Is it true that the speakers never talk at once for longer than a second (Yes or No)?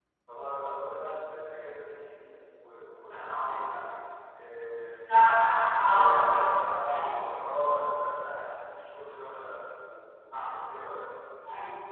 Yes